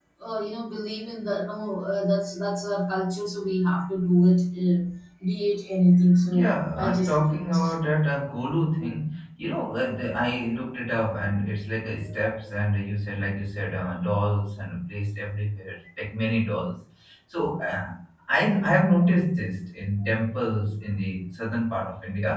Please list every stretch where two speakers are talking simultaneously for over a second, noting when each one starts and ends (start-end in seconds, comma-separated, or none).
6.3-7.6